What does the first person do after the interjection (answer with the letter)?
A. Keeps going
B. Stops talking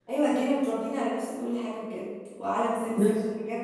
A